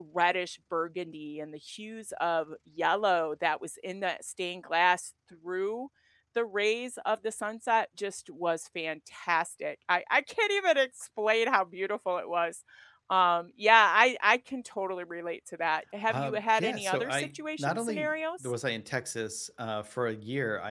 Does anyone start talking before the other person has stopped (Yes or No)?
Yes